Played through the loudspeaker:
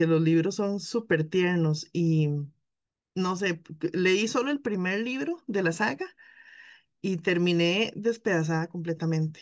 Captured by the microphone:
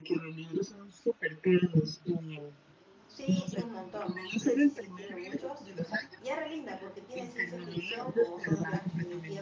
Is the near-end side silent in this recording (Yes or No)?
No